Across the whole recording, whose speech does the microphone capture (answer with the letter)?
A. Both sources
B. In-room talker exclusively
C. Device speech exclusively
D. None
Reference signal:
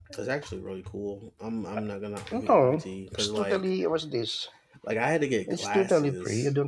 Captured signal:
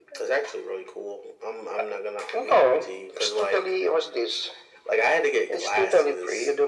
C